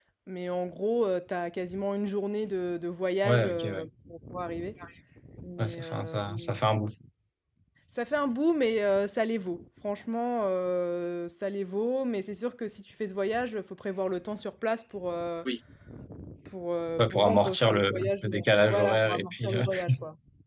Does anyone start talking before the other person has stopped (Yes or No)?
Yes